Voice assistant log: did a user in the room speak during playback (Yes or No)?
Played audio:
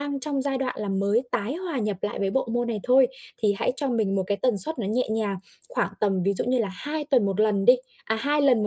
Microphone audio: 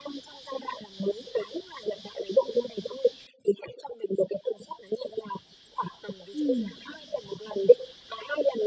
Yes